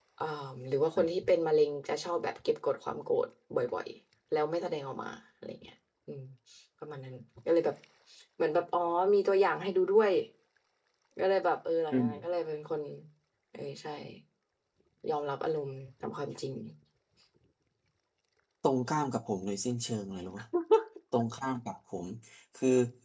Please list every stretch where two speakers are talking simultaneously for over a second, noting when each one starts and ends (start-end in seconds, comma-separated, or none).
none